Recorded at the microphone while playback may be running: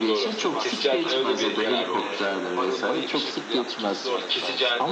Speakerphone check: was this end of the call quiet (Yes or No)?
No